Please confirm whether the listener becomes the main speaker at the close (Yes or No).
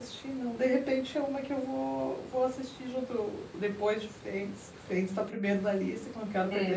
Yes